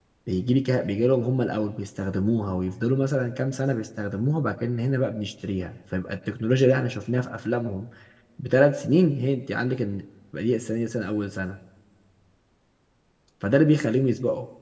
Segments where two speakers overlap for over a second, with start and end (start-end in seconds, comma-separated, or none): none